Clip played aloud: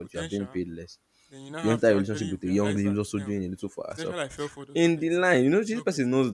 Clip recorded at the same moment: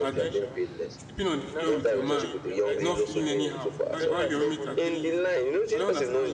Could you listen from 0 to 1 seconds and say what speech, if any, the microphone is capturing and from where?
both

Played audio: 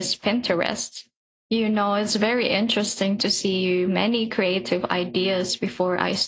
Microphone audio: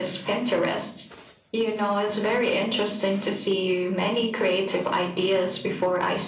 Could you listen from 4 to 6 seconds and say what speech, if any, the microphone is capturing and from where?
echo only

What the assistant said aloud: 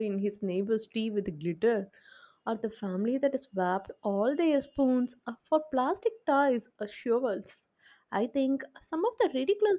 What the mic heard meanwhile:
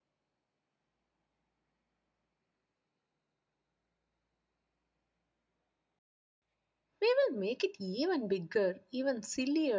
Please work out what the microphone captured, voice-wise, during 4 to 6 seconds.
neither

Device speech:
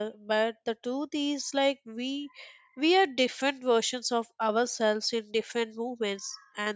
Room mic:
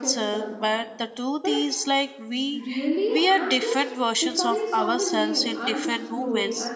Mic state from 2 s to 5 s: both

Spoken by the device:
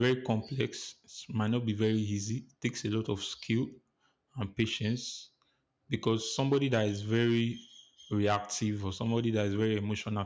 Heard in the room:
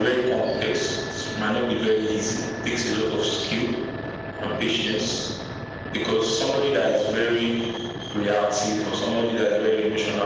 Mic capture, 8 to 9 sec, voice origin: echo only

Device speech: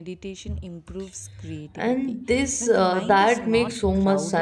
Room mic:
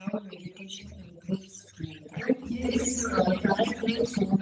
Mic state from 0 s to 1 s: echo only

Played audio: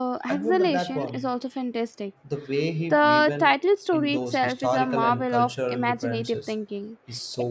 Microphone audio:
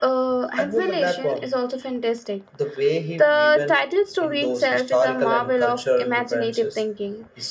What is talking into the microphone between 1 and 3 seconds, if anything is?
echo only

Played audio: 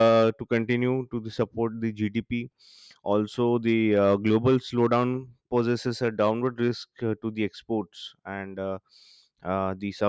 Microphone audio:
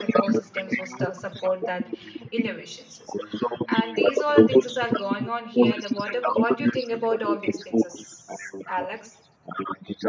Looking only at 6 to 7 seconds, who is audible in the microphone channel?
both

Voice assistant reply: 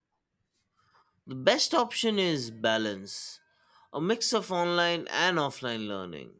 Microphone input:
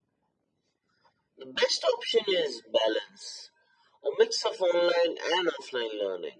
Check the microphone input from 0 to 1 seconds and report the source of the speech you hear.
neither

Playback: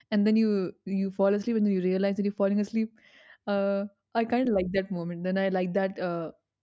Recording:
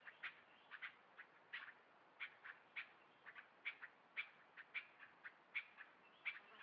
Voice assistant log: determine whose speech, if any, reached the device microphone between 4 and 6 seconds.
neither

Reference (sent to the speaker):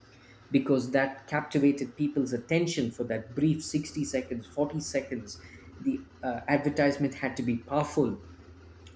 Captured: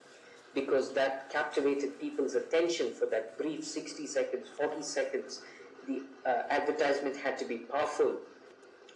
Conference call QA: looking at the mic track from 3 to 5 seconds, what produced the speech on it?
echo only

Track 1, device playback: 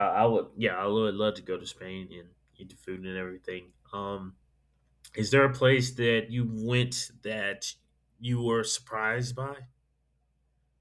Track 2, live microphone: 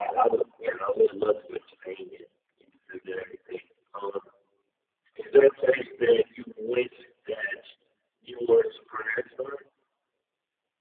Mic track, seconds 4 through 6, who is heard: echo only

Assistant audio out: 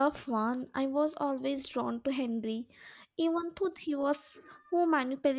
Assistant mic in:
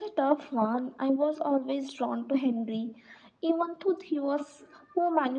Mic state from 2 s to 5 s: echo only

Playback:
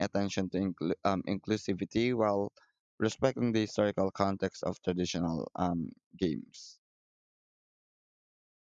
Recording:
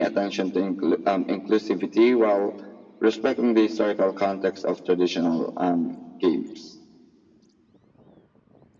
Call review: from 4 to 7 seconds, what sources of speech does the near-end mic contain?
echo only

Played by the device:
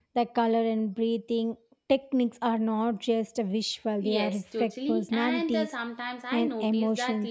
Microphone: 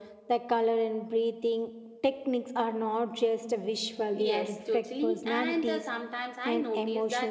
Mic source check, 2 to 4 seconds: echo only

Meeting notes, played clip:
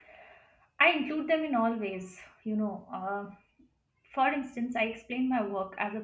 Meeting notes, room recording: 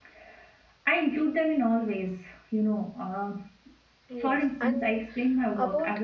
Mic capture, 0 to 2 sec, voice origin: echo only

